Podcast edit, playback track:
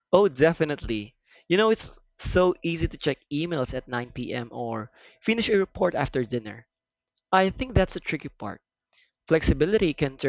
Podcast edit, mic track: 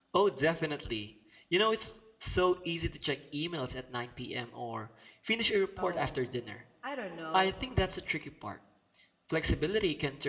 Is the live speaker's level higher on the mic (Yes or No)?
No